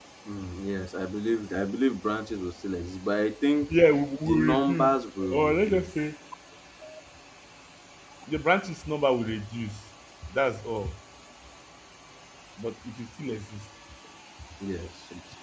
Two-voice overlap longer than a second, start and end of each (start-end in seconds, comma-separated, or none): 4.2-5.9